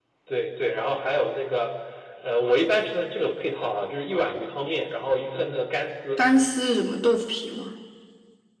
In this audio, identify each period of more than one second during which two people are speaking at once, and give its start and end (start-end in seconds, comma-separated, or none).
none